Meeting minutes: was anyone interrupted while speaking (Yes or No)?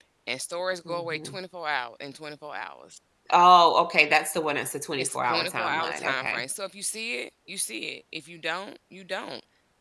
Yes